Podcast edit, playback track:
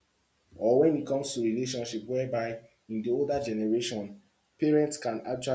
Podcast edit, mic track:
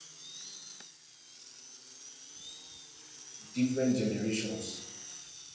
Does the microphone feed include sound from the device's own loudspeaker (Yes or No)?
No